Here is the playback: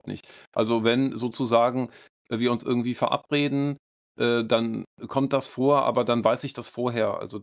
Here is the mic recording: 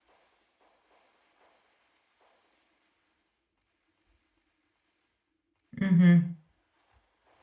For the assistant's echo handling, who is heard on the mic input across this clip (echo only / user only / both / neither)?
user only